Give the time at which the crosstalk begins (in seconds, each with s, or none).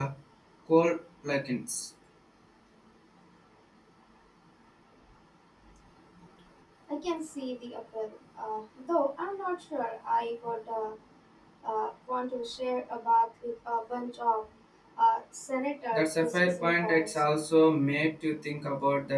15.9 s